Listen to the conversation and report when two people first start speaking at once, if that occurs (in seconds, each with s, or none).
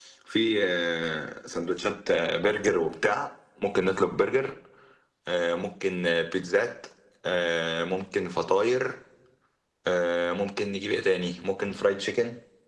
none